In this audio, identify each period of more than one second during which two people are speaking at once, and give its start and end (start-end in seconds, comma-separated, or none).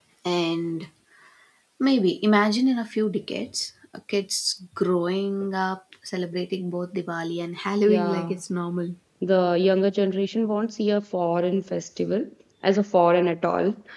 none